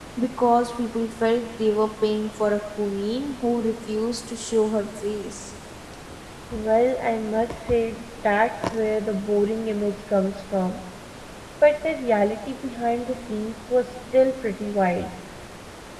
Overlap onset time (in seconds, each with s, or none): none